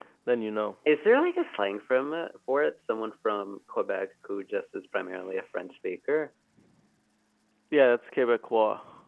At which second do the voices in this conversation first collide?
none

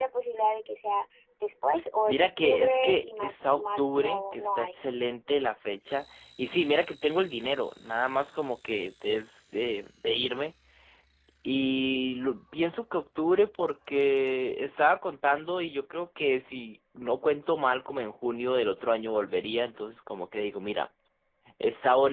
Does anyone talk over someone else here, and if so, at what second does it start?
2.1 s

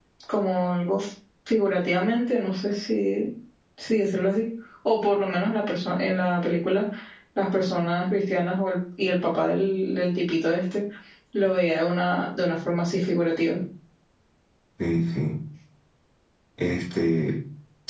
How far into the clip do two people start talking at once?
none

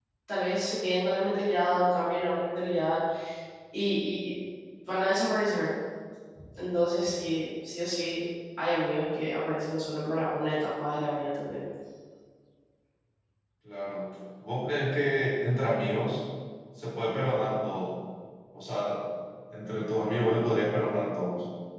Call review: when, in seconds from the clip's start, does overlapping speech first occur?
none

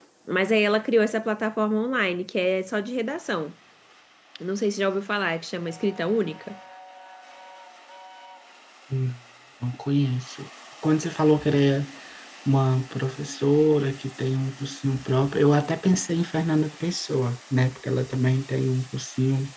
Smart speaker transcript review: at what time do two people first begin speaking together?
none

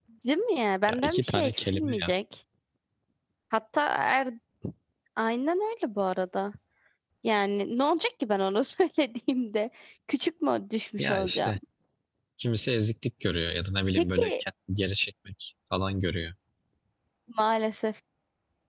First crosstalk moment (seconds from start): 0.9 s

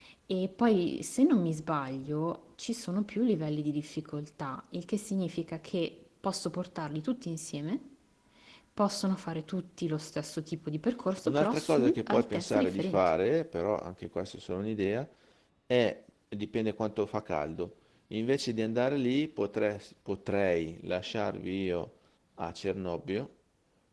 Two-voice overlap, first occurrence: 11.2 s

